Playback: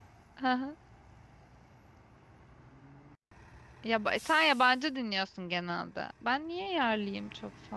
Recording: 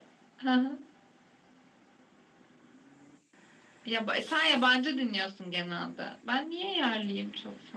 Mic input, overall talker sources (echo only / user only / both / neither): echo only